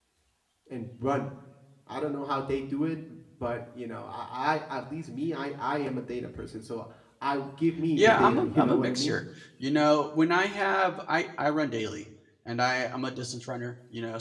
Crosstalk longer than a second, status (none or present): present